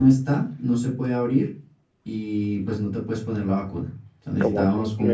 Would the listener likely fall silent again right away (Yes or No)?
No